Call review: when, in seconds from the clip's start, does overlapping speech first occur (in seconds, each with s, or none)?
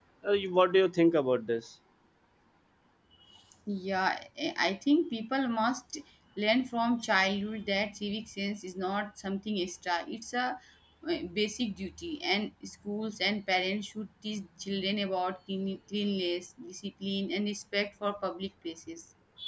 none